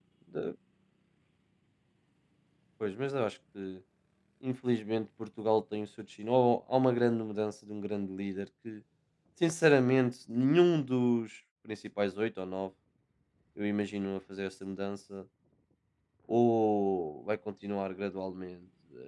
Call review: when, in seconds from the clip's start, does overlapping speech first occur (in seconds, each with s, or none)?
none